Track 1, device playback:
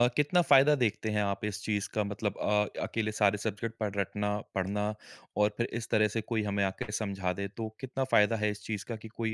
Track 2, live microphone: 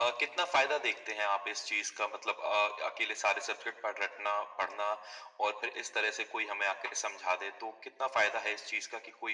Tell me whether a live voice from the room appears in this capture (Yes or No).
No